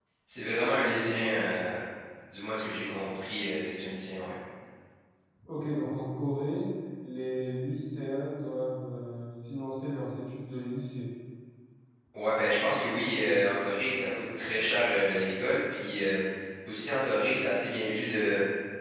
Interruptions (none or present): none